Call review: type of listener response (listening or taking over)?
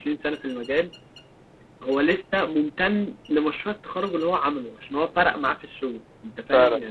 taking over